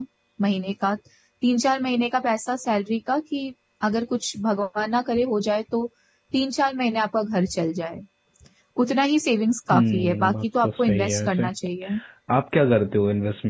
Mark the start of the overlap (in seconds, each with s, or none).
9.7 s